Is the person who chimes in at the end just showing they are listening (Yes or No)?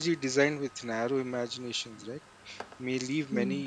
Yes